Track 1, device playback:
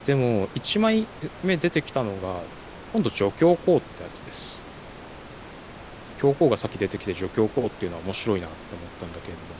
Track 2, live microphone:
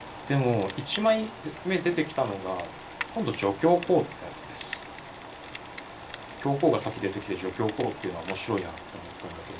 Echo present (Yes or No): Yes